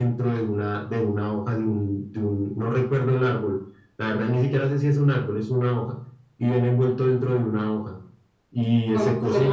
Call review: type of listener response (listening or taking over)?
taking over